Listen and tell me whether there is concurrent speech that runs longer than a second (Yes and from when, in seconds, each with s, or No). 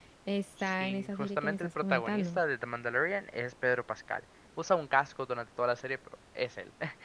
Yes, from 0.6 s